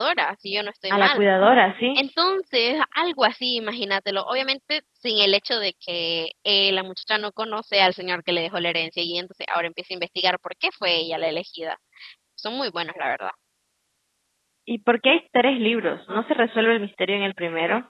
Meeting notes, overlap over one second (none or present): none